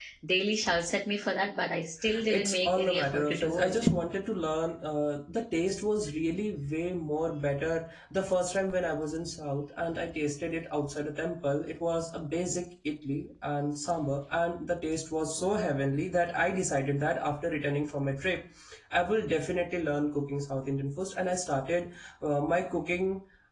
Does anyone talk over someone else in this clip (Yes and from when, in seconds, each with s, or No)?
Yes, from 2.0 s